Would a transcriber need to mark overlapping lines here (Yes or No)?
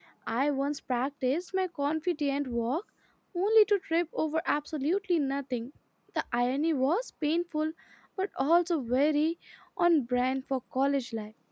No